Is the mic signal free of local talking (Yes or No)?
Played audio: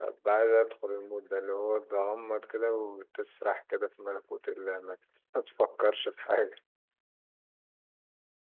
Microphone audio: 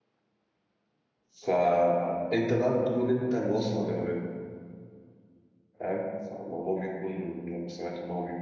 No